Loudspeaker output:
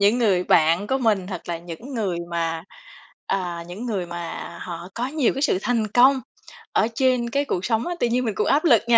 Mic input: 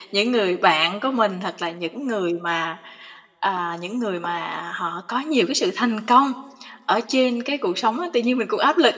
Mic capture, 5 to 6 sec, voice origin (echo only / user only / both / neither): echo only